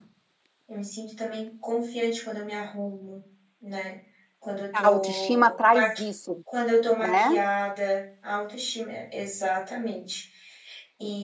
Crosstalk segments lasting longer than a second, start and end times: 4.8-6.0

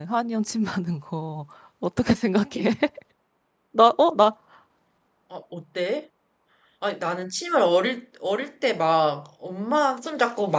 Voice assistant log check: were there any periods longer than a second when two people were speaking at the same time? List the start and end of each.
none

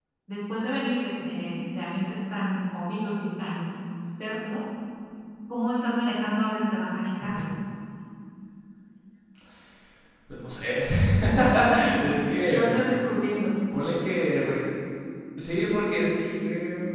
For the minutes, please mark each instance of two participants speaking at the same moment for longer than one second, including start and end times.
none

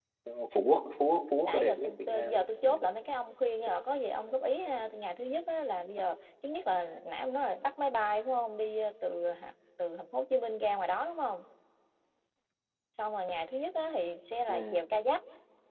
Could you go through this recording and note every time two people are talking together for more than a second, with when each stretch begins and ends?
1.4-2.7

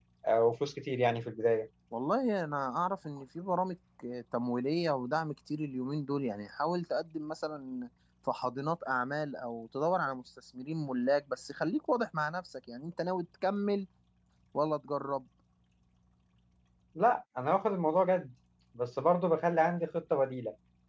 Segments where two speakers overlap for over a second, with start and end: none

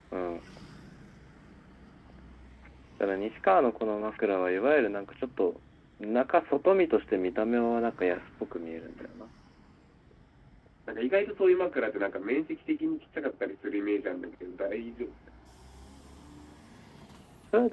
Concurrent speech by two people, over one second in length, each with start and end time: none

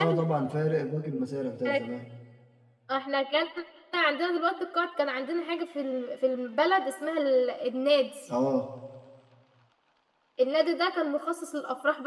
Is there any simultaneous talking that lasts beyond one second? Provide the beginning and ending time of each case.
none

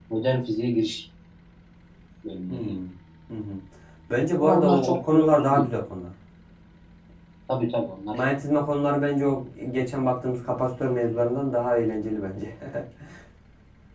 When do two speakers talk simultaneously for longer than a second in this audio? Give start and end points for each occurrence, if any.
4.4-5.7

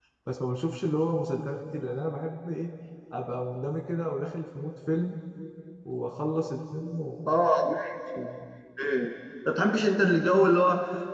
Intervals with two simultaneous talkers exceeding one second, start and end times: none

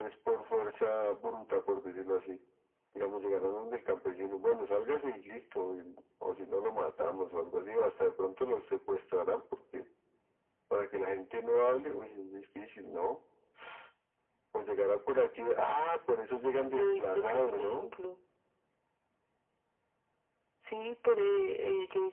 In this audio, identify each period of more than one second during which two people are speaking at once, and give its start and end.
16.6-17.9

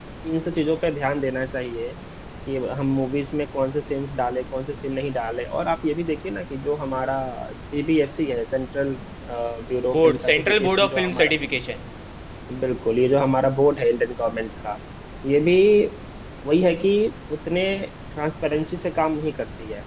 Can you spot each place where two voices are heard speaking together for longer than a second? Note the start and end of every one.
9.9-11.3

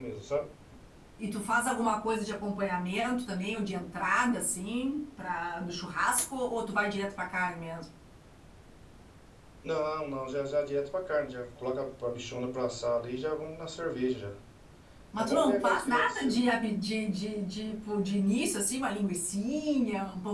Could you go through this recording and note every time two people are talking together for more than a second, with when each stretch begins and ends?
15.2-16.4

